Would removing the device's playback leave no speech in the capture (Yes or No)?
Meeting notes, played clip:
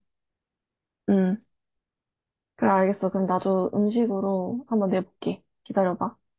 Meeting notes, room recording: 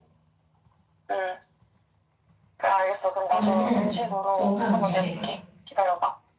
No